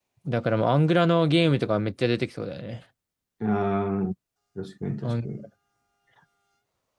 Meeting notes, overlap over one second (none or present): none